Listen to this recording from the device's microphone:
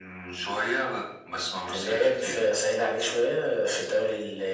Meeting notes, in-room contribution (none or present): none